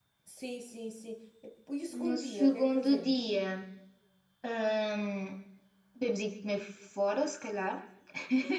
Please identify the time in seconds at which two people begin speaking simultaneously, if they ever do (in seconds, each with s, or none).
1.9 s